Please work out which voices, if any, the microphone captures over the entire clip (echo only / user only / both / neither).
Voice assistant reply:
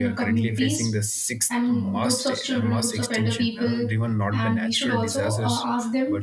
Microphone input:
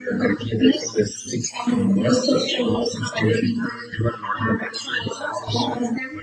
echo only